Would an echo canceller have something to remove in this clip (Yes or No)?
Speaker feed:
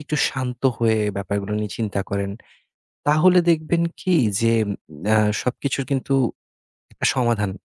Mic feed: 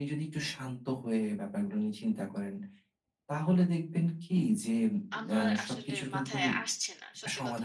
Yes